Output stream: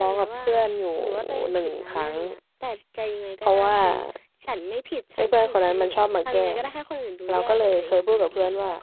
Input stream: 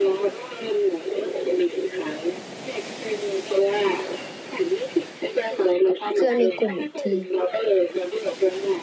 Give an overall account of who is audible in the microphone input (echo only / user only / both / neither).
both